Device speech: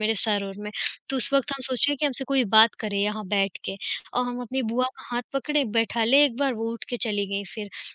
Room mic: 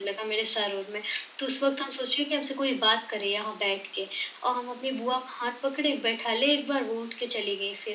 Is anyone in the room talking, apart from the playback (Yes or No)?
No